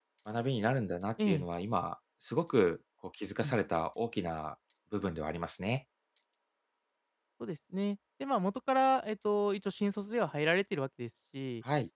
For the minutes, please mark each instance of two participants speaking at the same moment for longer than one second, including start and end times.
none

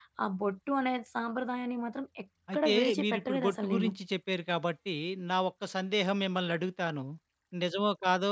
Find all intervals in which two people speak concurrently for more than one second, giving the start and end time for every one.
2.5-3.9

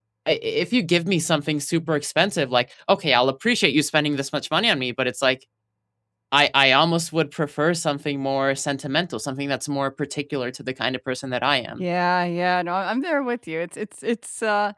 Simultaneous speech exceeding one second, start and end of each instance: none

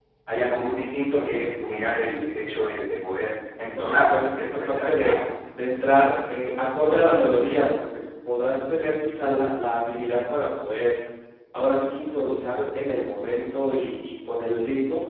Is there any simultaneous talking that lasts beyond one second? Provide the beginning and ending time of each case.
3.8-5.2

